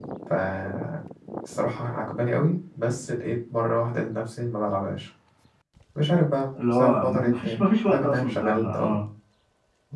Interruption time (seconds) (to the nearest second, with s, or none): 7 s